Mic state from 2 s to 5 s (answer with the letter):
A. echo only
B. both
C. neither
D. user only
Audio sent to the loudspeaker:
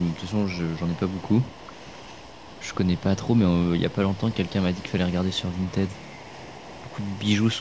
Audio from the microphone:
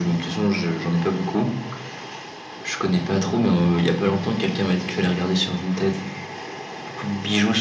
A